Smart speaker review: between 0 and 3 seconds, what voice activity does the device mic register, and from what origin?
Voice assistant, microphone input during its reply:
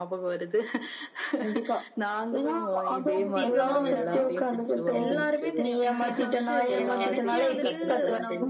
echo only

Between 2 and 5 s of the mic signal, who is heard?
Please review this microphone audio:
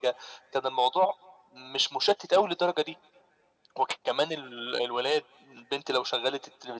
echo only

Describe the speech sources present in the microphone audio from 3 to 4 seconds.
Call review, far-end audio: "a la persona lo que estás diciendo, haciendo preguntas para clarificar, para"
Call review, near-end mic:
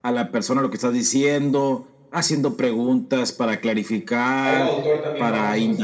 echo only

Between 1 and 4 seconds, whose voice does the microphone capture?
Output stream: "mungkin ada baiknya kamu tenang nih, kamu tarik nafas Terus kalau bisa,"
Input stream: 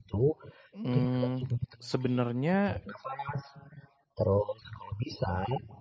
both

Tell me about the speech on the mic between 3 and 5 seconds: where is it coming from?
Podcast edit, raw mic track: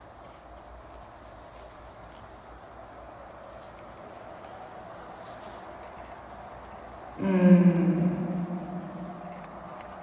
neither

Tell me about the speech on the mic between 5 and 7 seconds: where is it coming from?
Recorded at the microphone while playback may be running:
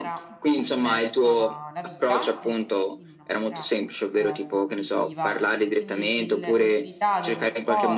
both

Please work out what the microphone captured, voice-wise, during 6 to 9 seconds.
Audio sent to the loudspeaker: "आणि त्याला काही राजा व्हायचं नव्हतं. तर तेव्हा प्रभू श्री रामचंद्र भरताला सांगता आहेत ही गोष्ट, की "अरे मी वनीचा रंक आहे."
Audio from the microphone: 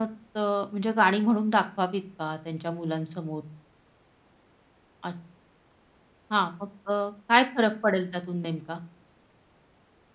user only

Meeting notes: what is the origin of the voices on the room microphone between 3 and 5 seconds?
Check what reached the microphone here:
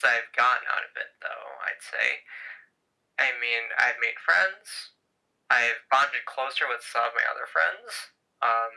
echo only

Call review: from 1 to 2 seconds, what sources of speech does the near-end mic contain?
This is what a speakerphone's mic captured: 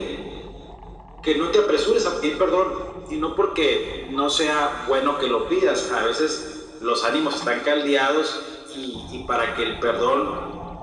echo only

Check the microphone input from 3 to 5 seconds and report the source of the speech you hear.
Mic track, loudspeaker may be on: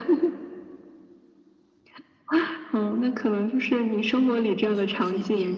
both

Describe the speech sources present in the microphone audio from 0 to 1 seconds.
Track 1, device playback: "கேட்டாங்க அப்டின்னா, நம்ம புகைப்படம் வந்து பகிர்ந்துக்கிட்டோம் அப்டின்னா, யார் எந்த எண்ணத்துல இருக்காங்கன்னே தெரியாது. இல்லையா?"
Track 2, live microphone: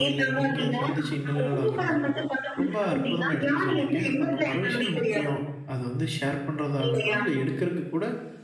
both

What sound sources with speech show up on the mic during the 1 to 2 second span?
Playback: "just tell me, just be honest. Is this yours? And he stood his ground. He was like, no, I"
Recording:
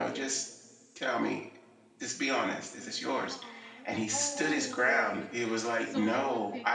echo only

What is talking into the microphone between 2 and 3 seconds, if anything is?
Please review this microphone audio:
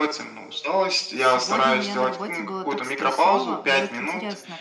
both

